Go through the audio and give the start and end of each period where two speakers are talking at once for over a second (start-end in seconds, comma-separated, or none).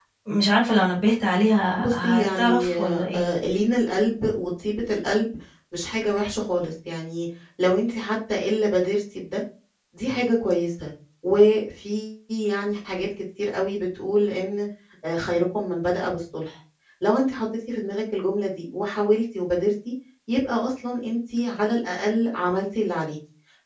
1.8-3.2